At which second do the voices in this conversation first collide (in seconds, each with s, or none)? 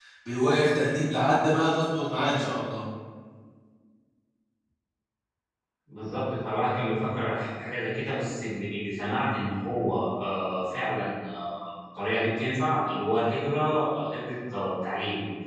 none